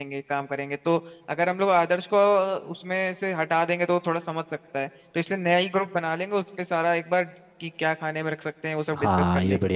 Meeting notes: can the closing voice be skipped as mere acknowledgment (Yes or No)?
No